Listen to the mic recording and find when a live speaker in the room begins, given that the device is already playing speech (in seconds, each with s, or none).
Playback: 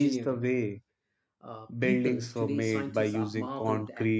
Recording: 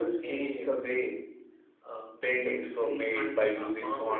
none